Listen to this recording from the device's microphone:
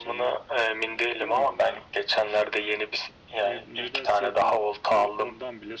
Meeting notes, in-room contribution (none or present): present